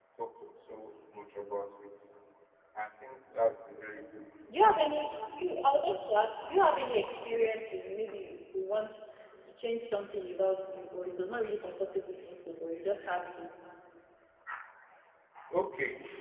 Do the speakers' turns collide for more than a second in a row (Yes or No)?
No